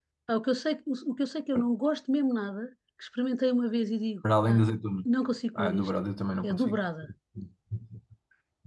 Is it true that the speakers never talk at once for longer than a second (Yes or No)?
Yes